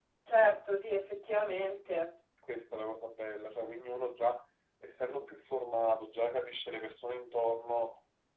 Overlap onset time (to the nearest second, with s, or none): none